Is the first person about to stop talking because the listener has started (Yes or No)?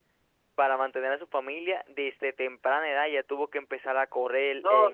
Yes